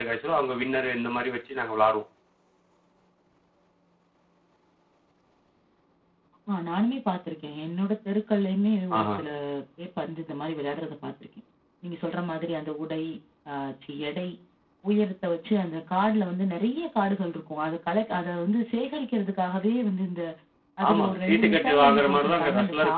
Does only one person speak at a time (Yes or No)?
No